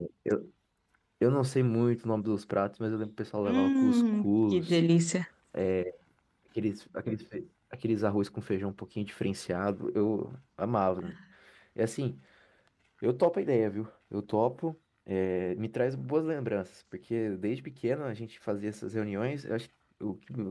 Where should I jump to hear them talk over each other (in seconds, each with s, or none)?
3.4 s